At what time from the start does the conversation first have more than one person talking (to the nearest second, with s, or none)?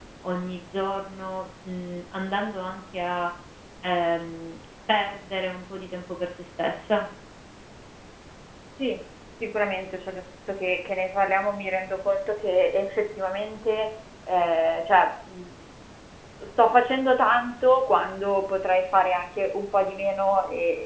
none